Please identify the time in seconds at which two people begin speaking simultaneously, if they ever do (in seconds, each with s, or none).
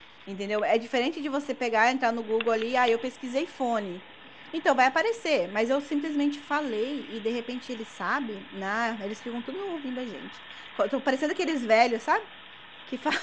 none